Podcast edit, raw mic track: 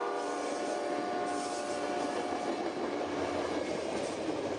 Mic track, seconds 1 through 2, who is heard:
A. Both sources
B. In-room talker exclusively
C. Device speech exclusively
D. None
D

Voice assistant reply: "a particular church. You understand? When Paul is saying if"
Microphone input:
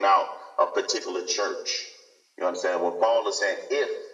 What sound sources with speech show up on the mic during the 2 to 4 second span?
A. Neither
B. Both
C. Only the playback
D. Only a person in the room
C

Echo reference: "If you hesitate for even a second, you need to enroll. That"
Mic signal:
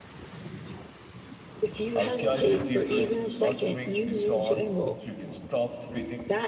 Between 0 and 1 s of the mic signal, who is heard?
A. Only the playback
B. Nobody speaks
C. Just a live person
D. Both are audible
B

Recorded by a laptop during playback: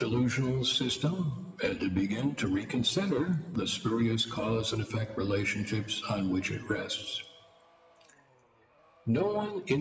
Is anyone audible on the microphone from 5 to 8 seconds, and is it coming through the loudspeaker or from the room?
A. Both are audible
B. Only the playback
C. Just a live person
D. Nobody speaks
B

